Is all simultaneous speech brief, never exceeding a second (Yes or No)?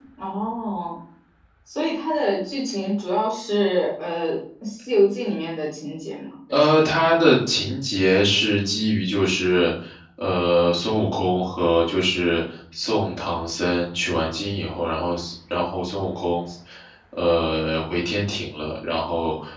Yes